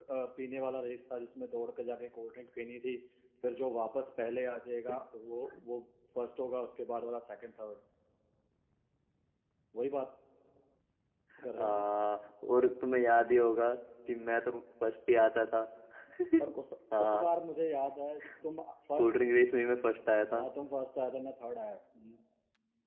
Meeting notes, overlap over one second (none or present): none